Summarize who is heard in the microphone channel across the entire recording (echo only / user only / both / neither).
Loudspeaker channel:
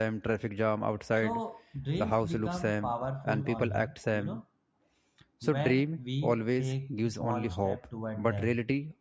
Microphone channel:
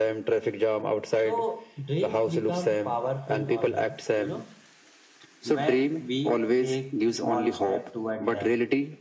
echo only